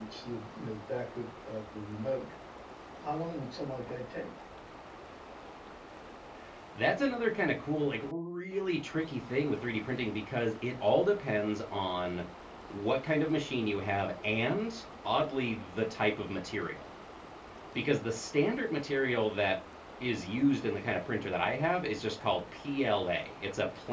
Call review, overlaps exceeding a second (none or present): none